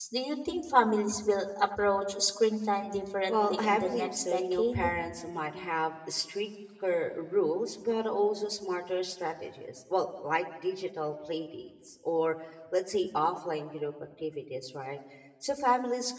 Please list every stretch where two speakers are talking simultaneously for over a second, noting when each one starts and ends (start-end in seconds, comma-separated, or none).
3.3-4.8